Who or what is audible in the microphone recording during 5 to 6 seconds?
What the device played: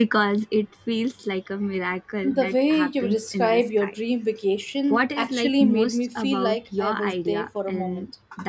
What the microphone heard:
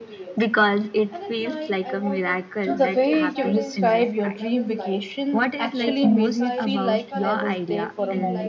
both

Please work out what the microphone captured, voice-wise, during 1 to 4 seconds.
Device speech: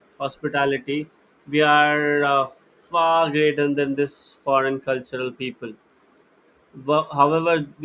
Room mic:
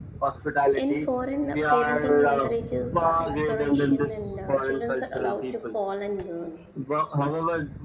both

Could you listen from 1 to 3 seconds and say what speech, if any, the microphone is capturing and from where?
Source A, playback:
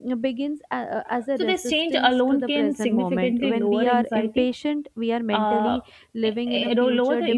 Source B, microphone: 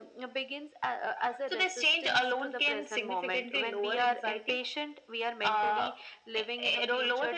echo only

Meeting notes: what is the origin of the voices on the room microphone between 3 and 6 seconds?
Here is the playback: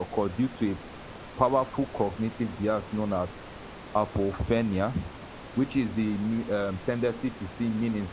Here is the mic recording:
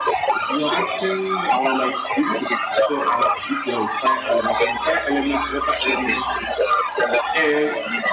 both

